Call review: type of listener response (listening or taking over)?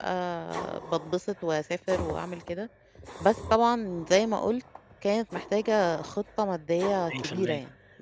taking over